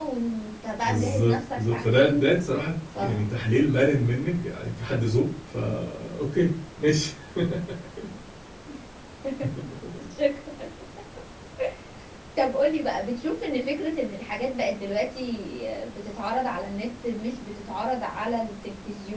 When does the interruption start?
0.8 s

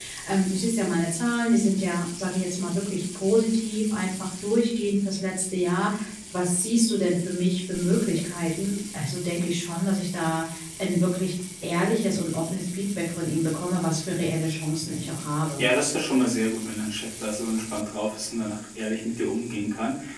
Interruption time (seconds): none

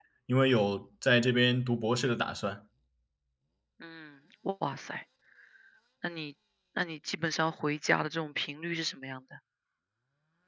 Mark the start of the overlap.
none

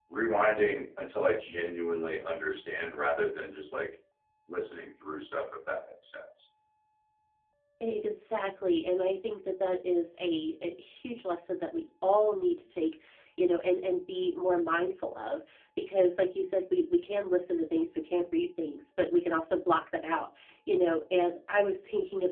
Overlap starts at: none

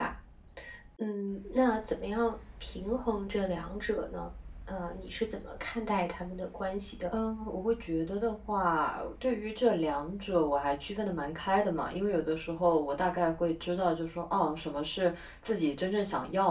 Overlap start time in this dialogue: none

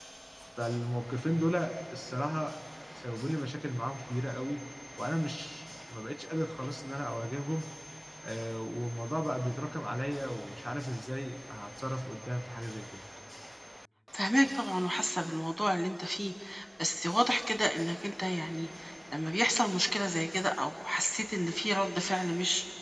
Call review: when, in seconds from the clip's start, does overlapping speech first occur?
none

